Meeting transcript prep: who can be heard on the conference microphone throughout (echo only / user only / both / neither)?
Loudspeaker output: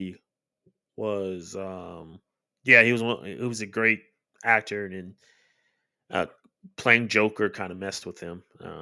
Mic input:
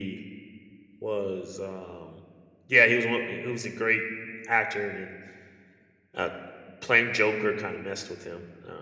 echo only